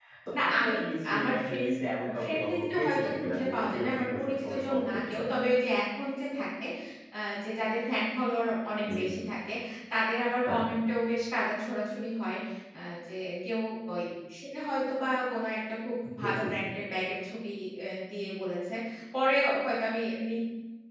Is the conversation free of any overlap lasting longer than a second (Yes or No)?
No